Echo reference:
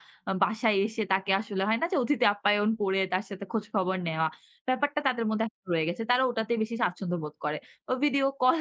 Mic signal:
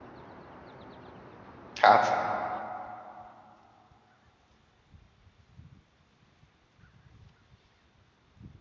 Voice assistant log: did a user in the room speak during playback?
Yes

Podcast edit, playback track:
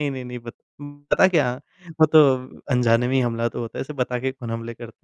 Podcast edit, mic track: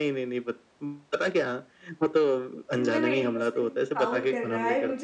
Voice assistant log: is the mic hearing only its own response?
No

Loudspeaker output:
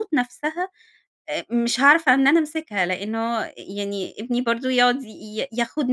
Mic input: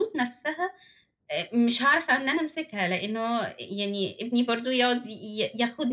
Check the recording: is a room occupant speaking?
No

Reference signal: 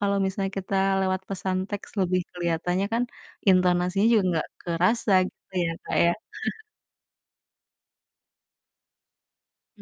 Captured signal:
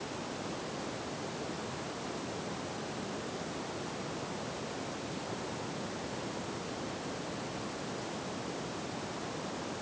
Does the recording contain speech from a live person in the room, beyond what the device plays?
No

